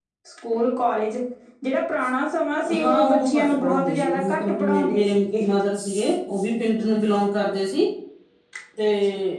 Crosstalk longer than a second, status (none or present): present